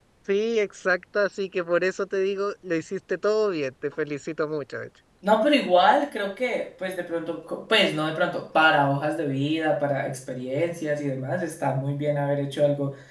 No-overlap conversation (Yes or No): Yes